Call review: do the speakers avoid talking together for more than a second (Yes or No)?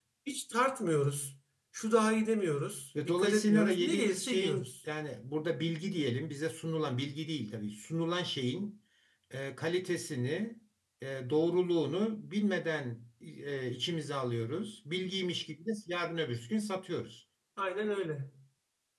No